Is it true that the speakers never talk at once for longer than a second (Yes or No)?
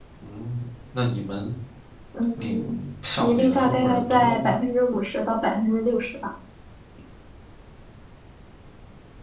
No